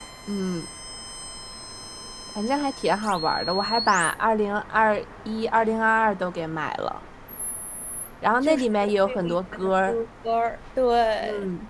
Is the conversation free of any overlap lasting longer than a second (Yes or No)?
No